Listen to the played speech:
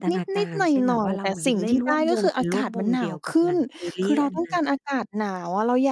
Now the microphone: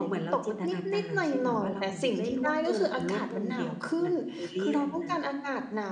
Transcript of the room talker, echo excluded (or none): none